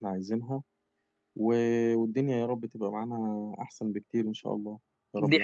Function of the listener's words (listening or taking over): taking over